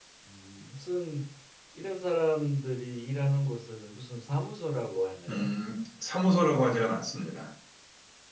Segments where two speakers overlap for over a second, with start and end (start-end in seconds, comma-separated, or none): none